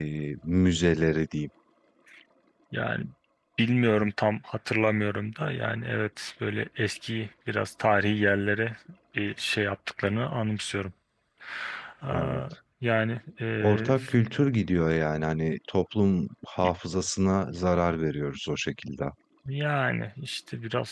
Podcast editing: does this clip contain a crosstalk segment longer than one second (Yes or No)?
No